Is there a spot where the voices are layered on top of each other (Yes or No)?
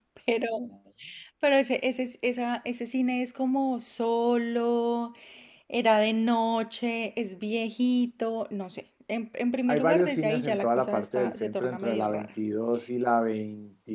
Yes